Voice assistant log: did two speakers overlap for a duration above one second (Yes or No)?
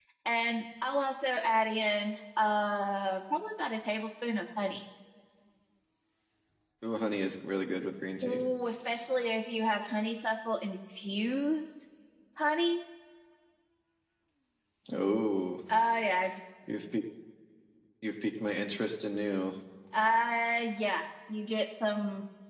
No